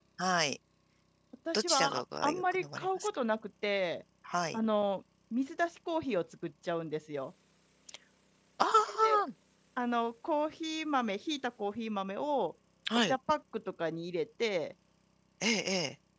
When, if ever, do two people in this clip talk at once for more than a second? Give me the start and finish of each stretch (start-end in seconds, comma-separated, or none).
1.5-3.1